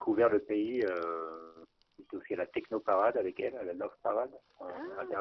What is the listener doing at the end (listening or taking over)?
taking over